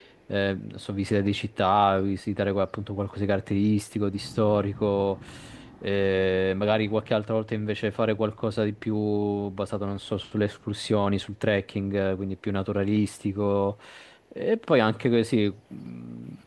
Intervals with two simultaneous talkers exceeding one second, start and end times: none

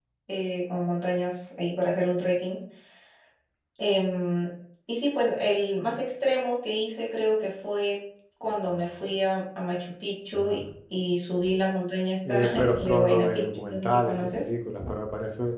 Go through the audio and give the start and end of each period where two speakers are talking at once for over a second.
12.3-14.5

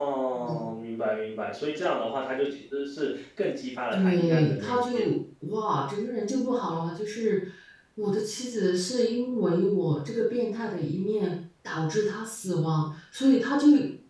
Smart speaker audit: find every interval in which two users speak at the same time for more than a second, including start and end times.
3.9-5.1

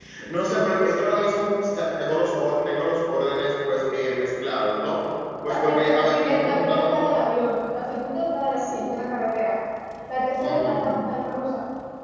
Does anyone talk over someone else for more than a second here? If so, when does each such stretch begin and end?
5.5-6.9

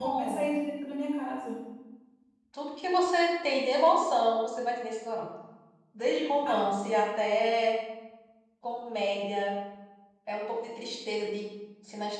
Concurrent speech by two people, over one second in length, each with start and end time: none

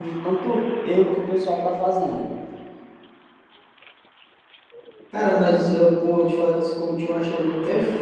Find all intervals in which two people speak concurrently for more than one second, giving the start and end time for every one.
none

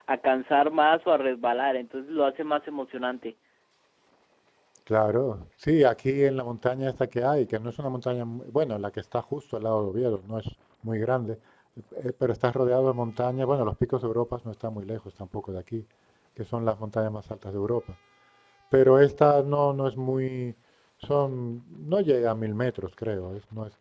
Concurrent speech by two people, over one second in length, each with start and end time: none

